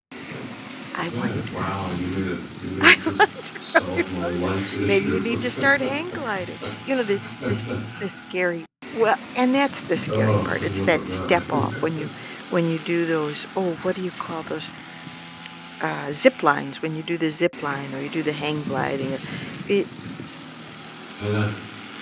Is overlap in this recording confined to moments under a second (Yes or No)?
No